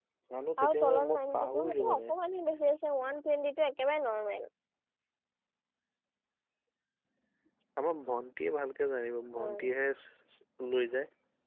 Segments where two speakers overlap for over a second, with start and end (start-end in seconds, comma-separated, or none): 0.7-2.1